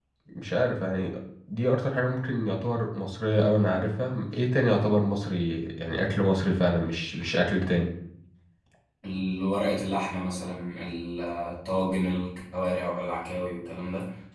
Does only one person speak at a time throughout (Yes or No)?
Yes